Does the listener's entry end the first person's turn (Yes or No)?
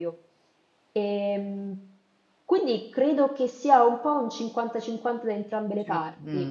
No